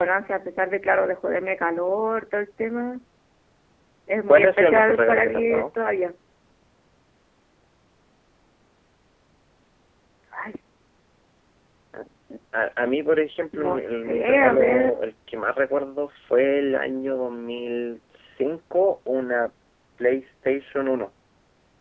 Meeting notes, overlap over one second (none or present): present